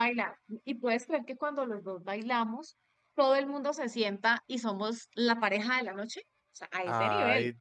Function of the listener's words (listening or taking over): taking over